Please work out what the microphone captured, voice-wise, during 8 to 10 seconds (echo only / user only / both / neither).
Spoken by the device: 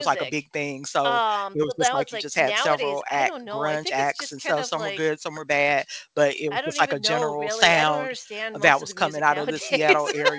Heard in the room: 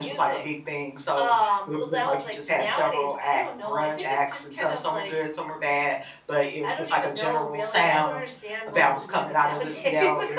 echo only